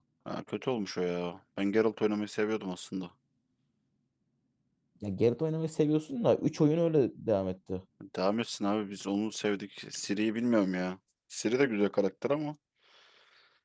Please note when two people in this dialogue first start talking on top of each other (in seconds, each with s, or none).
none